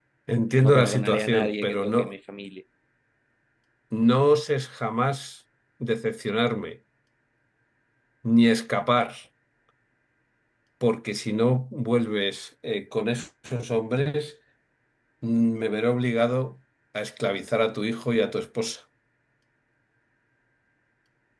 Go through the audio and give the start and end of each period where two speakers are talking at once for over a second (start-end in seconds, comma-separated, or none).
0.6-2.1